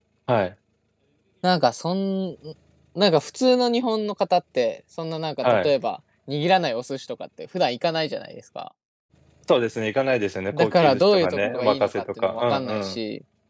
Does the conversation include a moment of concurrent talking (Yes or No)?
Yes